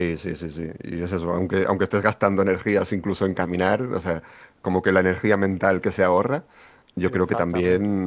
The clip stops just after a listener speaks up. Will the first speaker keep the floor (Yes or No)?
Yes